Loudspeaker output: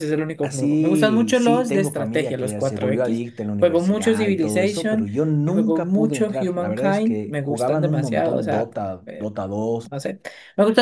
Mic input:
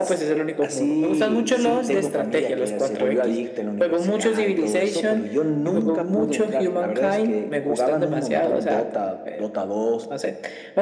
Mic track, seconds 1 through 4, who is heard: echo only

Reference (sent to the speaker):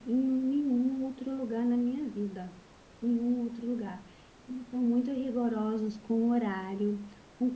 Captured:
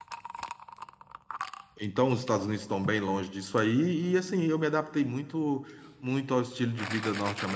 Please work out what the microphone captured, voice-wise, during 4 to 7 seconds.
user only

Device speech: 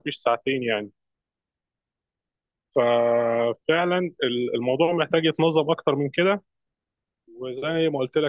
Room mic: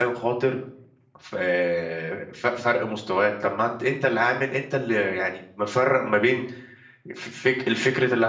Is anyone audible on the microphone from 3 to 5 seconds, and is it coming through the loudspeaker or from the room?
user only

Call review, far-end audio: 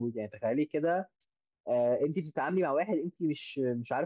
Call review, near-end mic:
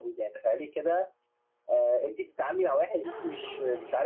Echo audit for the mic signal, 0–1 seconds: echo only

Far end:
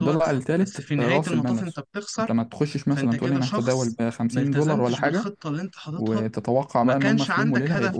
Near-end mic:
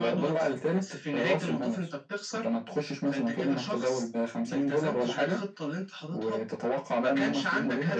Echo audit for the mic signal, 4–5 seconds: echo only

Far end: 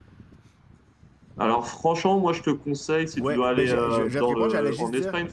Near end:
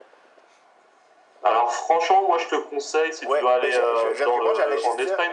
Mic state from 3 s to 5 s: echo only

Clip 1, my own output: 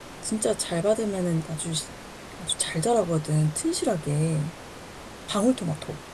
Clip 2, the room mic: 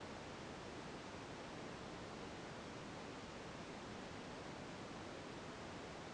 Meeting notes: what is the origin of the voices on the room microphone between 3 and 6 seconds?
neither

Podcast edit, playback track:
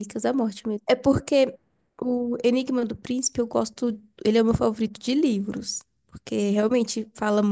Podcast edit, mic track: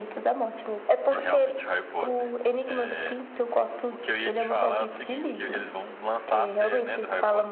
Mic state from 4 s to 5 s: both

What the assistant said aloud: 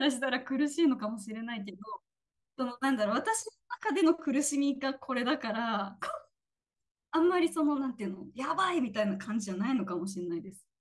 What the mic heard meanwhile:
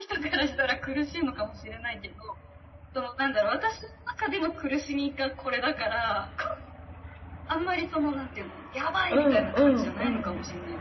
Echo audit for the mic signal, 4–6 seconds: echo only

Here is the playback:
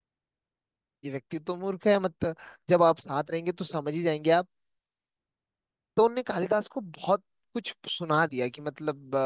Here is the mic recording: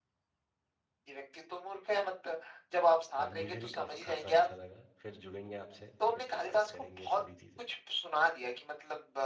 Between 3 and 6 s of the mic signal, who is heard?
both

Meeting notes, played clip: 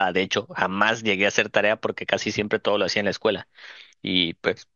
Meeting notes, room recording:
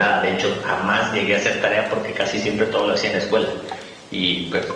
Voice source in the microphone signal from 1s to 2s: echo only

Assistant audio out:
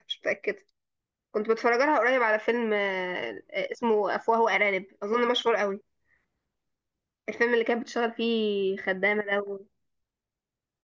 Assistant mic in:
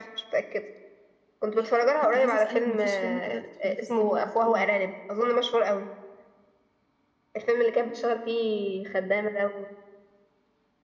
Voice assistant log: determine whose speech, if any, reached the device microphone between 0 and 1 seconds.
echo only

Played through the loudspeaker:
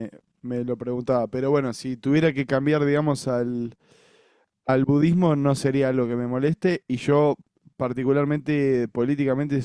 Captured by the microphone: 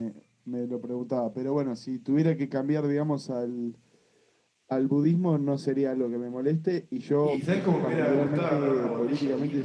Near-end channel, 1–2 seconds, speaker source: echo only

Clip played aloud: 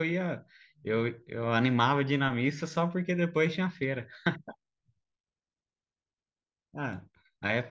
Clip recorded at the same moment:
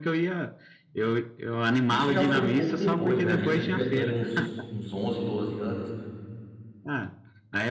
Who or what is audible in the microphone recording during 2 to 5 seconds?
both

